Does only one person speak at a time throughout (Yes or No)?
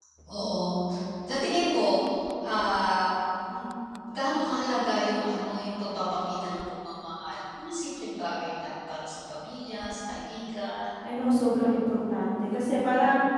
Yes